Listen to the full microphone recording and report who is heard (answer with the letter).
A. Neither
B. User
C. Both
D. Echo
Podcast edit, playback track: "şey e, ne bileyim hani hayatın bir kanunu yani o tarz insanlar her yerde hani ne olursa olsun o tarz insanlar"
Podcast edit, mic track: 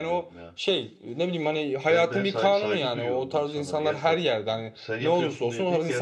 C